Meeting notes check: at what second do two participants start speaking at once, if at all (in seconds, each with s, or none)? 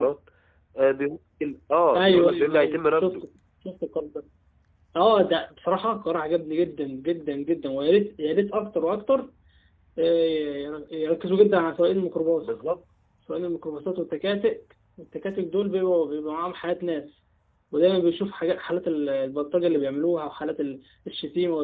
2.0 s